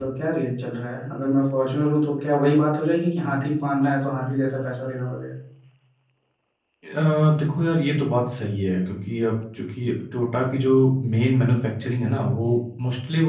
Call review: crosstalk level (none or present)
none